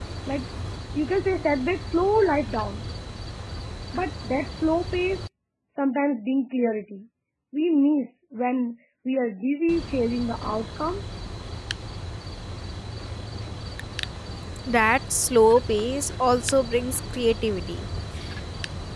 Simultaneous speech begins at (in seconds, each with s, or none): none